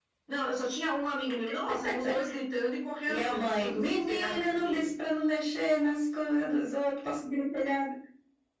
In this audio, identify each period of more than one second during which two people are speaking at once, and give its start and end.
3.1-4.9

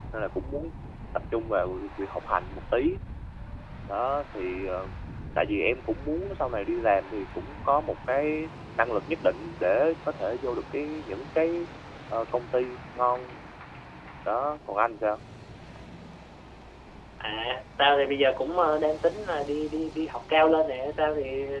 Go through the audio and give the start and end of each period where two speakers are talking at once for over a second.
none

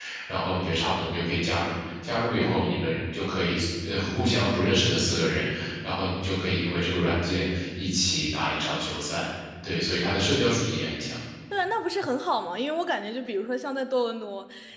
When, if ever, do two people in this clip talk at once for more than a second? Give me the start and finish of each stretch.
none

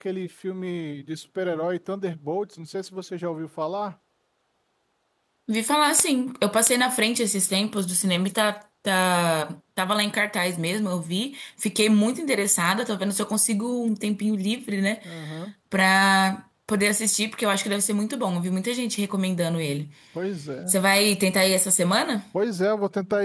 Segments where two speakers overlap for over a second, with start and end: none

